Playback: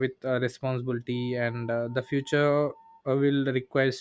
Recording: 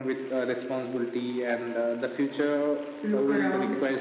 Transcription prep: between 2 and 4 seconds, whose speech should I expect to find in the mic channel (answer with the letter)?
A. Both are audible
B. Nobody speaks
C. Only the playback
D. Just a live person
A